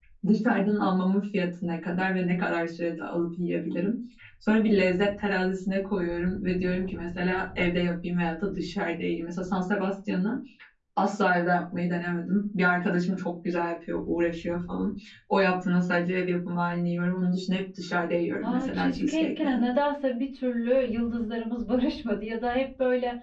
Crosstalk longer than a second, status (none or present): present